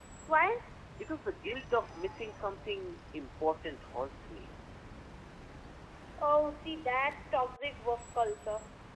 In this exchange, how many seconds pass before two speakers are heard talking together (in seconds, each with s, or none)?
none